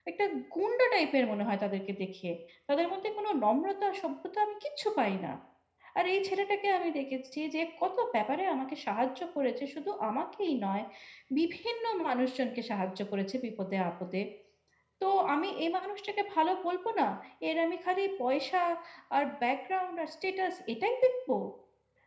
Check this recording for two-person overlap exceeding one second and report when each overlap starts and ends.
none

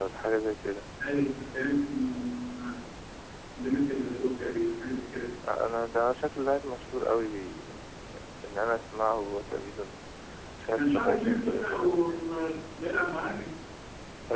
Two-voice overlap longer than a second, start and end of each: 10.8-12.2

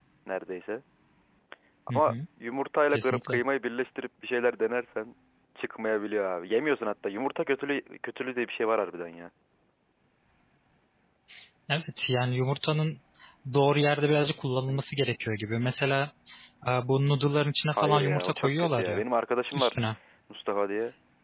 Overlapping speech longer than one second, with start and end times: 17.7-19.0

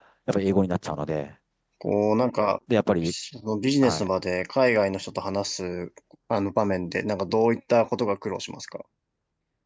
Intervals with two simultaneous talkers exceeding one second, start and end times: none

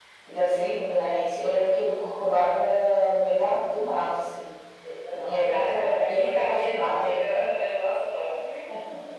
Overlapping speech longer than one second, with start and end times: 5.1-7.1

